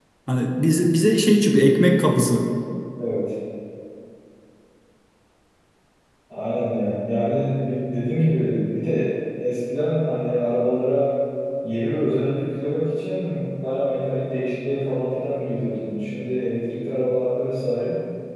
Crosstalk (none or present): none